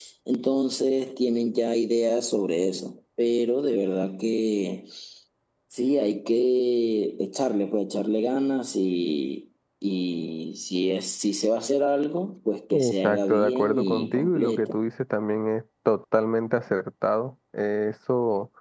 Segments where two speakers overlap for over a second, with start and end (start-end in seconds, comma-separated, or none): 12.7-14.8